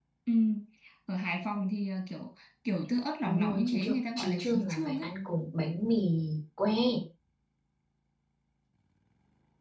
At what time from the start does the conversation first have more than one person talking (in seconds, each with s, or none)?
3.2 s